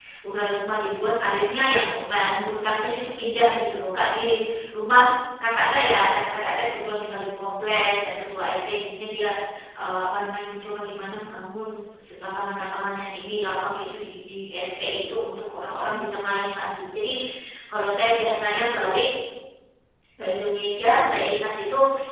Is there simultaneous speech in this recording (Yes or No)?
No